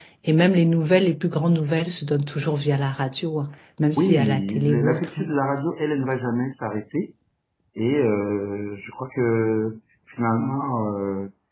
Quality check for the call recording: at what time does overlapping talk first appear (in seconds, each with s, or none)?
4.0 s